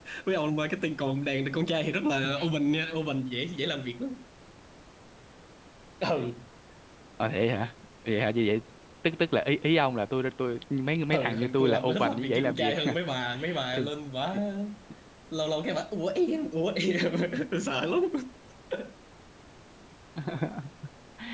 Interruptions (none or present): present